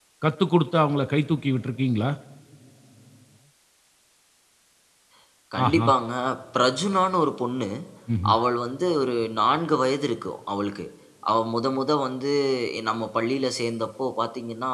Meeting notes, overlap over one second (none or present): none